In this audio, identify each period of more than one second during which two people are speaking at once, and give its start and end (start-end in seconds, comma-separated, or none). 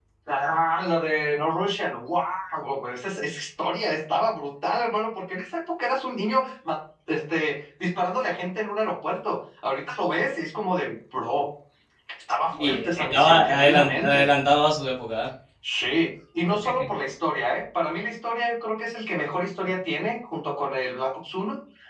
12.5-14.3